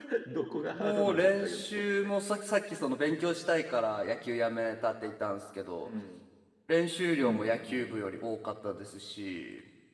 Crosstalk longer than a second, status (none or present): present